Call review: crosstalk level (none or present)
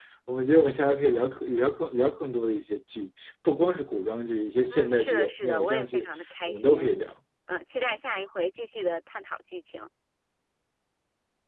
present